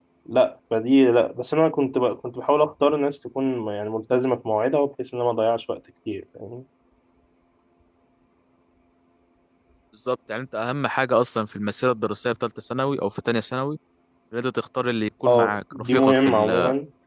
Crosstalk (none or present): present